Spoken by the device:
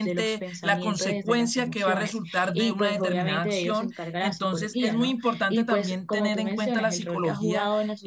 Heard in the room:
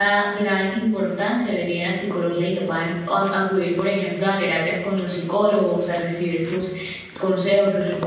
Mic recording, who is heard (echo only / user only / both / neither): user only